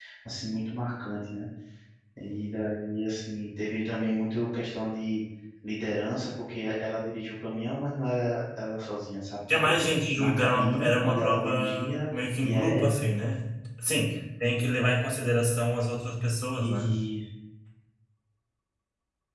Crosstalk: present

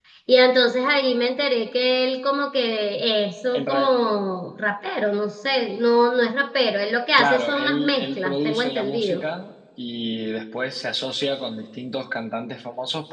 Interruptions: present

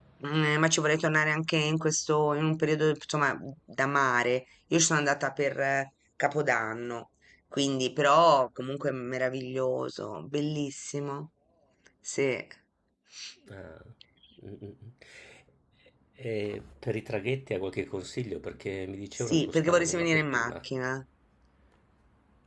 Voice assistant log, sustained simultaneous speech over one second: present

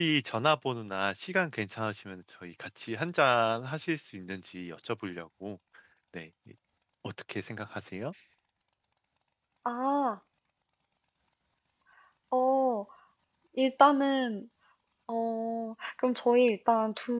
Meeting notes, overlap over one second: none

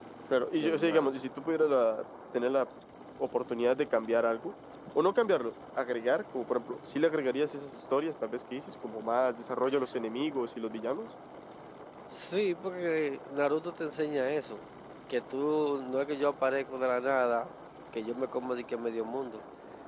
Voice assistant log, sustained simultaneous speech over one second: none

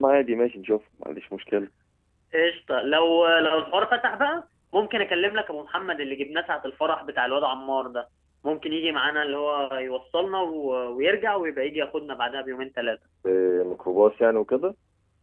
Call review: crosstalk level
none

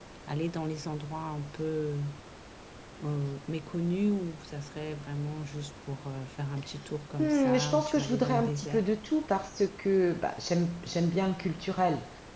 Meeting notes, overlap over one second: present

